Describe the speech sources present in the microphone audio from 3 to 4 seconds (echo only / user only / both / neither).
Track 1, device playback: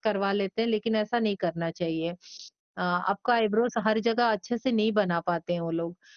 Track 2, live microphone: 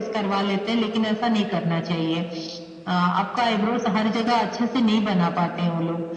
echo only